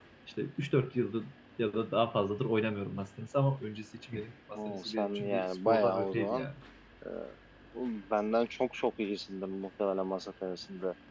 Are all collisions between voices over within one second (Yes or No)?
No